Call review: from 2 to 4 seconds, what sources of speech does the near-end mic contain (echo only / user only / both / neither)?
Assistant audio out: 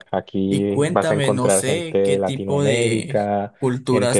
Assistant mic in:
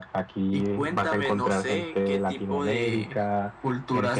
echo only